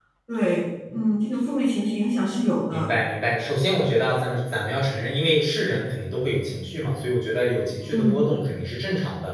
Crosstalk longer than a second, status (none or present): none